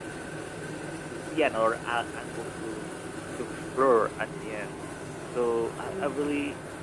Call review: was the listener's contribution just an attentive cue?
Yes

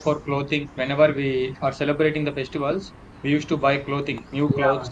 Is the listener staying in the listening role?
No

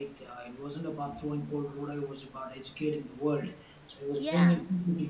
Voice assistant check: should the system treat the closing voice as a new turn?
No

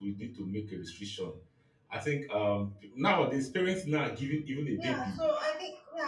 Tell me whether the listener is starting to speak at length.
Yes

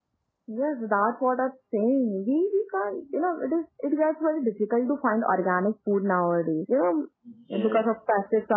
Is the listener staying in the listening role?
Yes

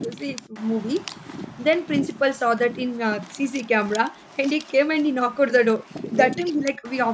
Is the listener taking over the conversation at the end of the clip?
No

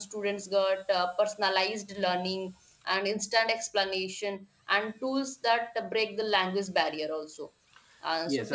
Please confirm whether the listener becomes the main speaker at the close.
Yes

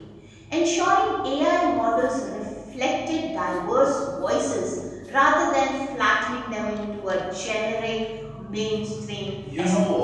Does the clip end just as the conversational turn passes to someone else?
Yes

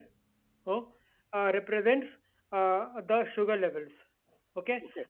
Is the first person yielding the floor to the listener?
No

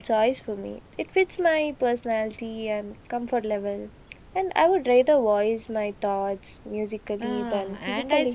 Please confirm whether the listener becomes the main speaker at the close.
Yes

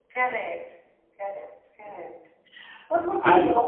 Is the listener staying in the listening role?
Yes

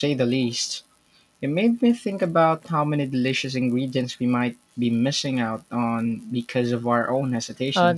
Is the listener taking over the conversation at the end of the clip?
Yes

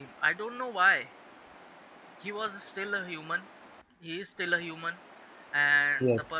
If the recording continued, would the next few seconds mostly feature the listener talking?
No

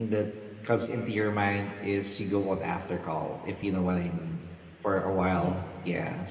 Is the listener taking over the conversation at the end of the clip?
No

